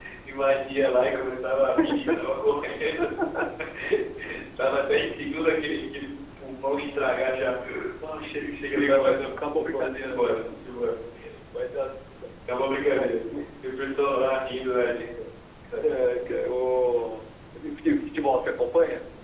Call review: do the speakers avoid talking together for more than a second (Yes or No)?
No